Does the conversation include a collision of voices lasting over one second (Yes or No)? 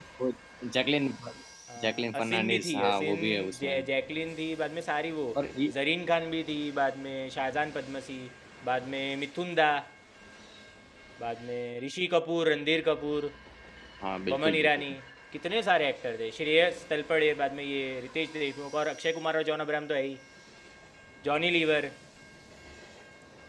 Yes